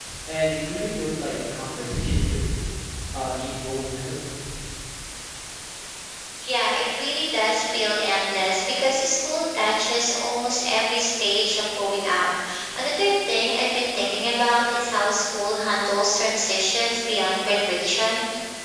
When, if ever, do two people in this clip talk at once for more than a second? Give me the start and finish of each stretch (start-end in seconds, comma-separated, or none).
none